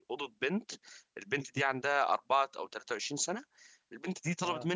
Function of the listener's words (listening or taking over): listening